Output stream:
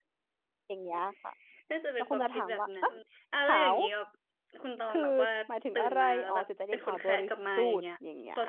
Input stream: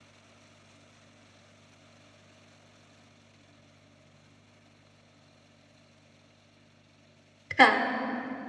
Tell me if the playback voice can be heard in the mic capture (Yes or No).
No